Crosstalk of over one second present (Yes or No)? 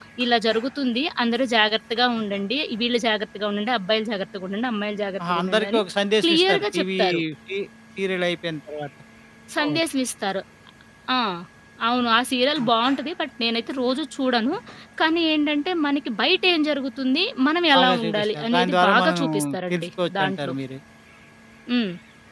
Yes